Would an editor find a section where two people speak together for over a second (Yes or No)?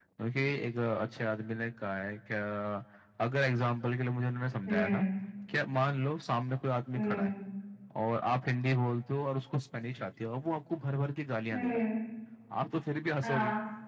No